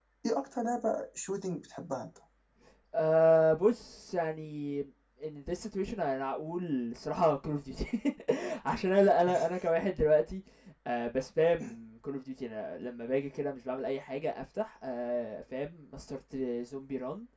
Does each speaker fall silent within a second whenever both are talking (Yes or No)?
Yes